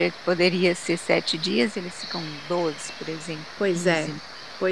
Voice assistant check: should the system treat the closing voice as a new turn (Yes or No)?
Yes